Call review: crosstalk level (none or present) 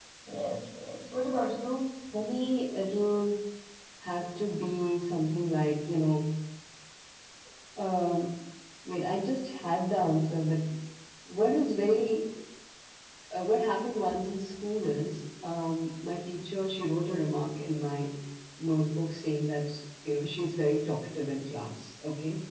none